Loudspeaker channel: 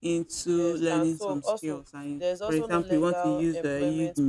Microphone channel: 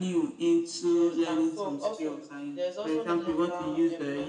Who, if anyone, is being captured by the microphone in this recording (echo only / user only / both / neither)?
echo only